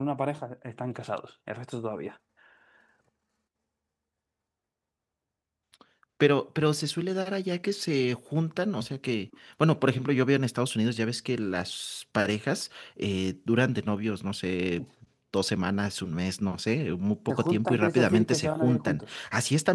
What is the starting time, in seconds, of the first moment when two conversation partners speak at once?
17.3 s

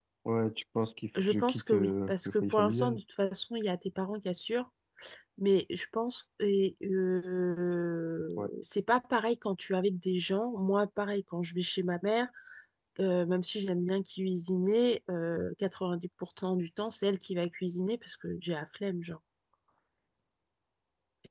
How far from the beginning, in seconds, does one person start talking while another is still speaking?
1.2 s

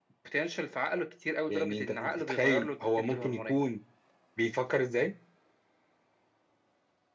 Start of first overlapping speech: 1.5 s

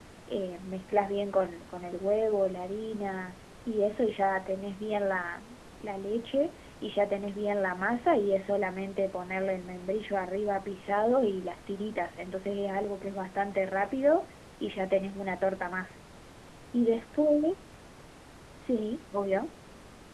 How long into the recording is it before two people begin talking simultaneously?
none

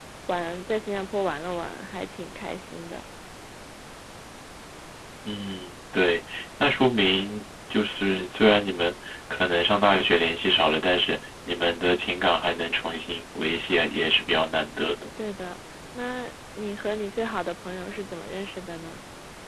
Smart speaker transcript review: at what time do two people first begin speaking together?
none

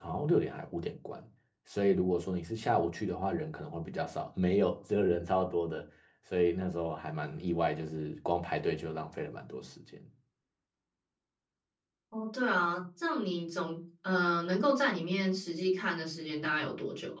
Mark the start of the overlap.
none

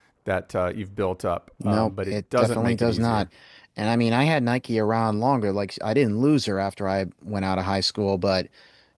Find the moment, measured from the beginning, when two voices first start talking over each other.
1.6 s

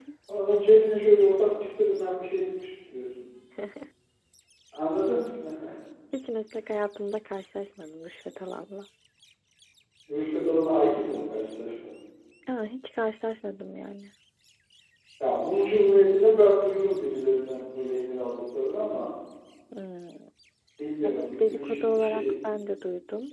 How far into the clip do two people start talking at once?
21.0 s

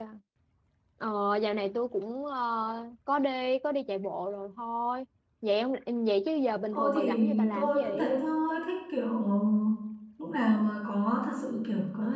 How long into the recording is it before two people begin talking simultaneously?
6.7 s

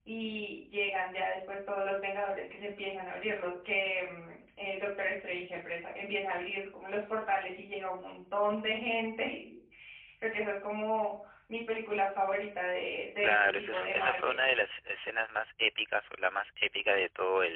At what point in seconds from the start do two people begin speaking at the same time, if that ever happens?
13.2 s

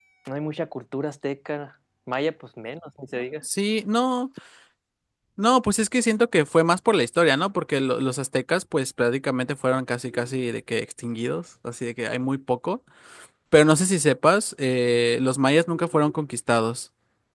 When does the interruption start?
none

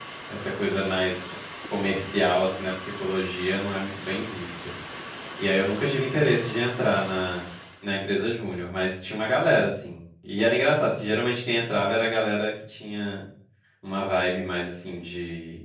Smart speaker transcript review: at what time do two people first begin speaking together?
none

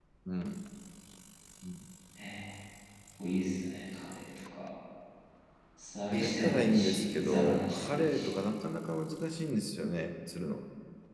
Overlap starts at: 6.1 s

